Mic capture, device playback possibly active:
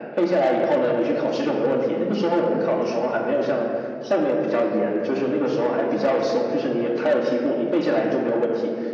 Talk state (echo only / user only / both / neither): echo only